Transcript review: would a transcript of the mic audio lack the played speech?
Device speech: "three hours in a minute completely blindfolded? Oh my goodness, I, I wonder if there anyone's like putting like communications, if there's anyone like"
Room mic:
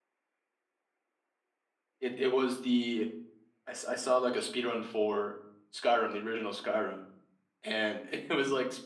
Yes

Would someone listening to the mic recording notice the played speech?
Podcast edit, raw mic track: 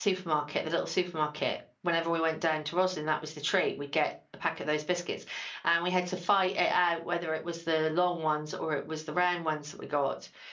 No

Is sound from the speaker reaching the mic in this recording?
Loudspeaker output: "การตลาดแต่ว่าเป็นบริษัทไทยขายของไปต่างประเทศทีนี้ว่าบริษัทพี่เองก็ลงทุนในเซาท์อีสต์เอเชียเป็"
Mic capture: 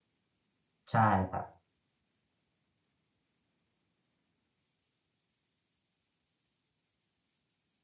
No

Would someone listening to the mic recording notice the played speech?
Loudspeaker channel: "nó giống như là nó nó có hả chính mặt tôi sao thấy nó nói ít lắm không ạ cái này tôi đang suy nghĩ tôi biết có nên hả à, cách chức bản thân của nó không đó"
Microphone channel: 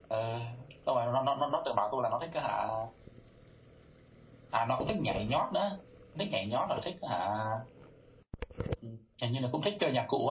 No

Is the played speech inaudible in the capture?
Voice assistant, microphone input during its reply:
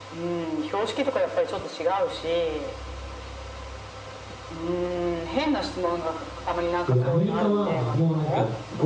No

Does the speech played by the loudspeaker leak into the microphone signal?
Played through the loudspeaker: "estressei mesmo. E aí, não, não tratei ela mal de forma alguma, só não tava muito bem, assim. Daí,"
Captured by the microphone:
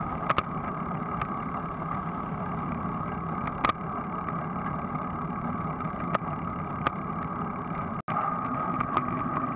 No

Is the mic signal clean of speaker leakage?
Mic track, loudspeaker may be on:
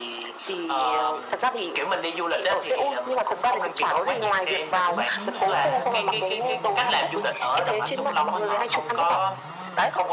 No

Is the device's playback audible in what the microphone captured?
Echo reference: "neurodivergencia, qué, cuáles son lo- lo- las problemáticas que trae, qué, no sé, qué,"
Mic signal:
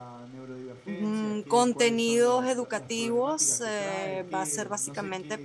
Yes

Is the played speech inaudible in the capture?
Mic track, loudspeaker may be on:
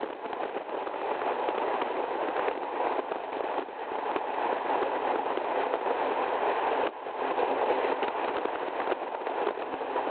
Yes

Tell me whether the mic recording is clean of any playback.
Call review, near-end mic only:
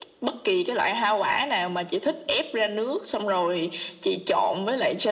No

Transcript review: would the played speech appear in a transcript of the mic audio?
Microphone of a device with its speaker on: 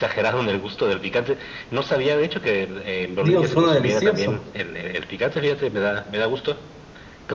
Yes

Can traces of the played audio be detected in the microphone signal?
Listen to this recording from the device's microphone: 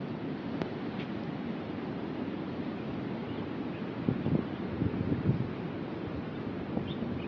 No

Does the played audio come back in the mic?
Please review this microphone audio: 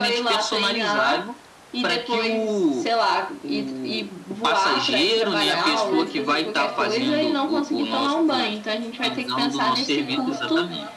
Yes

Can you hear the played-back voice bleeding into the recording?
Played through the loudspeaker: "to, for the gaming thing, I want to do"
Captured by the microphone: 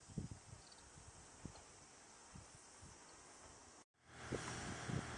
No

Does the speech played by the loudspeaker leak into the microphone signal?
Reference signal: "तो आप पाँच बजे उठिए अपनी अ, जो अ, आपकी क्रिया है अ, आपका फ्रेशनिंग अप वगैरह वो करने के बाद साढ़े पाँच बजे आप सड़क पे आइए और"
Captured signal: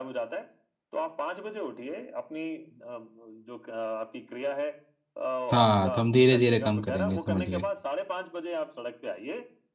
Yes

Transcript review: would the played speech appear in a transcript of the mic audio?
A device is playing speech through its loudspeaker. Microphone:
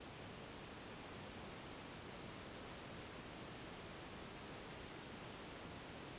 No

